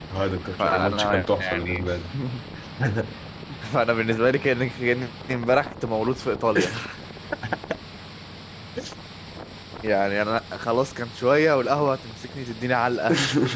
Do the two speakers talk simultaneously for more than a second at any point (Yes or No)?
Yes